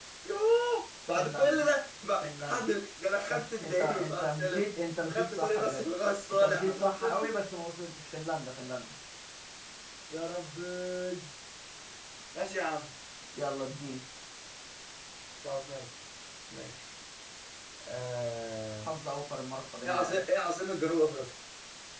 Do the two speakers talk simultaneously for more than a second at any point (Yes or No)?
Yes